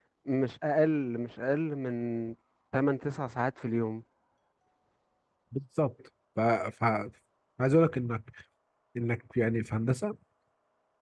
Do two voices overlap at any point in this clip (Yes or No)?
No